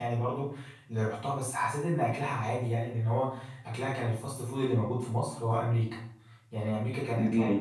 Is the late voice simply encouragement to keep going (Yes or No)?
Yes